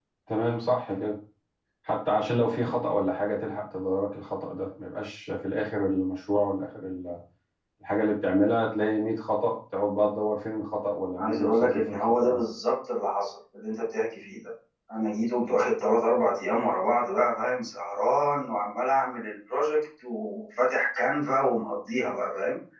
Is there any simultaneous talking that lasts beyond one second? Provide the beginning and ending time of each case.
11.2-12.4

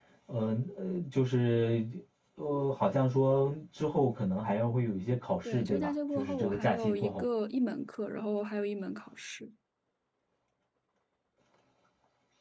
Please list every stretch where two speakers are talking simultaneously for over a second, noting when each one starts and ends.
5.4-7.2

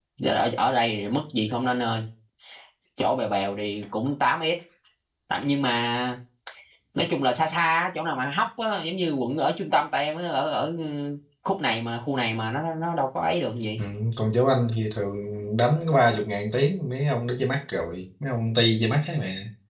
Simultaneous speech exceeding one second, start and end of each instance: none

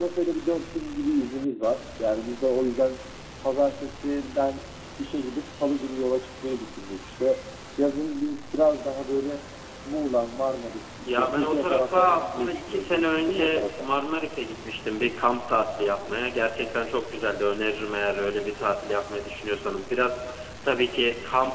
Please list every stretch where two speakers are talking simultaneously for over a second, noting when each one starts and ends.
11.1-13.9

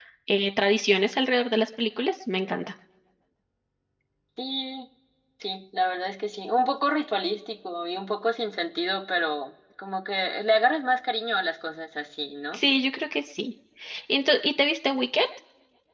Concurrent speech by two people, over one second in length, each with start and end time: none

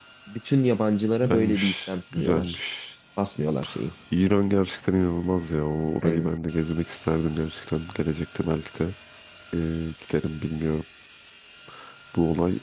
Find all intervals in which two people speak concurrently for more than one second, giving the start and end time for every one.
1.2-2.6

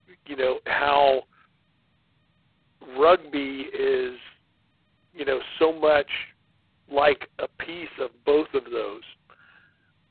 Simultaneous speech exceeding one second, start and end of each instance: none

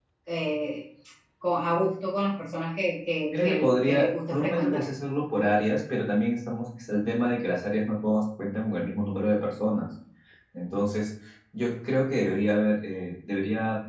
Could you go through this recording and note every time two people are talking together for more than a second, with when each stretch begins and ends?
3.3-4.9

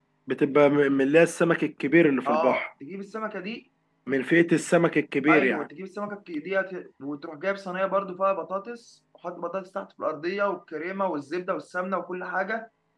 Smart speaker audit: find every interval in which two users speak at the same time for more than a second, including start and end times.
none

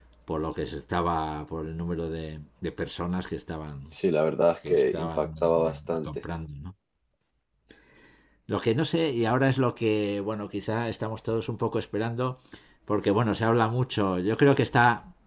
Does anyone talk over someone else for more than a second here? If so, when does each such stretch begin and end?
4.7-6.1

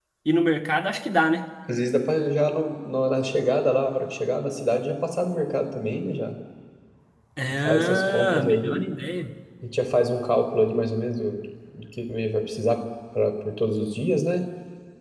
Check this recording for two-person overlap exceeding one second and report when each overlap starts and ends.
7.7-8.8

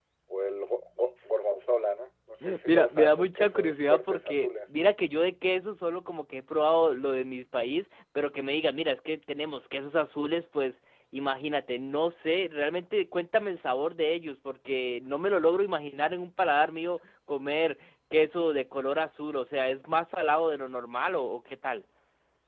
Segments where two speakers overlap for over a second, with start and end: 2.7-4.7

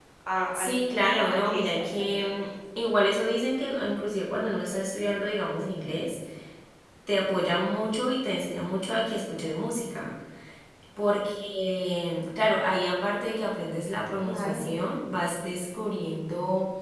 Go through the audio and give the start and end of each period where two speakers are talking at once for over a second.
0.5-2.5

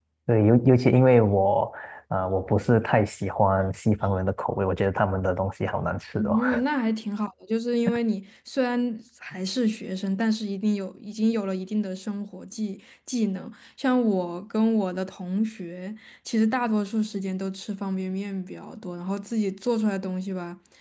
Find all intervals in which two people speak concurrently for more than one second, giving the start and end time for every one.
none

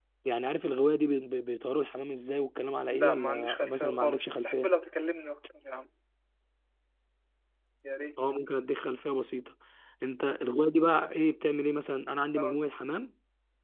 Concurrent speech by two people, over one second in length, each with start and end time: 2.9-4.7

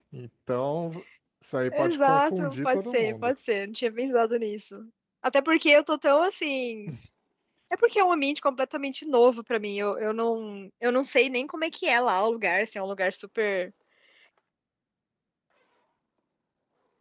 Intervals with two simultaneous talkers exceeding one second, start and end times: 1.7-3.3

